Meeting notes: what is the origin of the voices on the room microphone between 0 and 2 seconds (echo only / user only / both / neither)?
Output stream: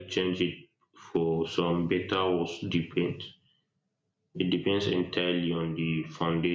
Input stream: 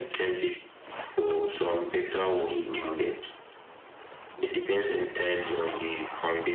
echo only